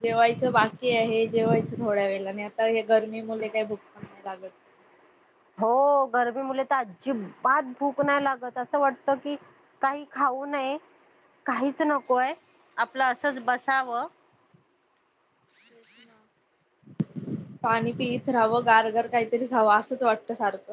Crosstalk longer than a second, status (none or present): none